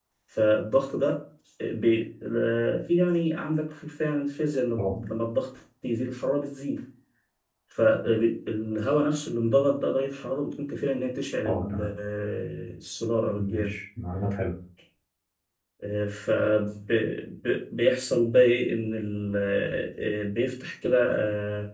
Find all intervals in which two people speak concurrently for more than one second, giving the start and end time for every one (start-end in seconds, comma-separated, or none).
none